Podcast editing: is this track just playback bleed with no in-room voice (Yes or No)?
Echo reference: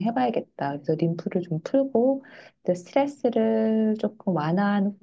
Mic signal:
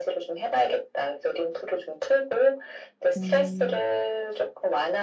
No